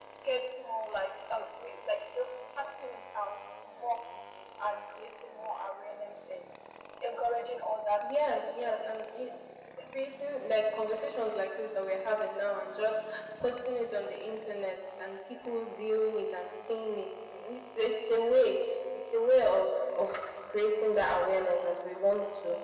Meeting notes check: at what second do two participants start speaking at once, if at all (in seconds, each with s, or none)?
8.0 s